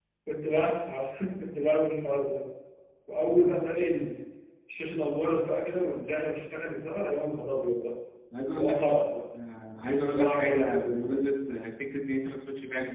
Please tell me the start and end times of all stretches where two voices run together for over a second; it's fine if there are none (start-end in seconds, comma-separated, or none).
9.9-11.3